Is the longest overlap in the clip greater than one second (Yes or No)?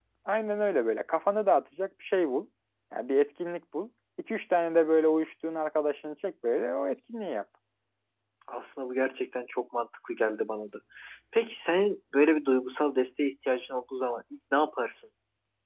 No